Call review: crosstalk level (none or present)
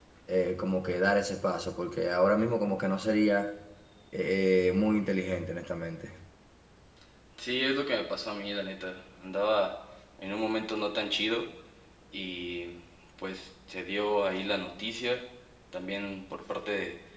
none